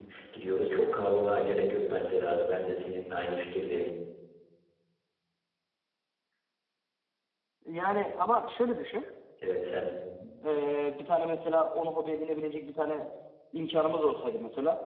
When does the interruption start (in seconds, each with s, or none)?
none